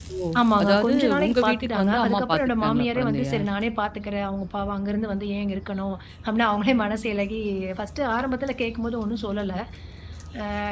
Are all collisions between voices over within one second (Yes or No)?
No